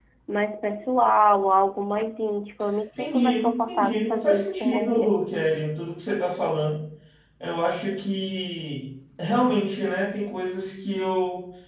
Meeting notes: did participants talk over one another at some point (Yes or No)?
Yes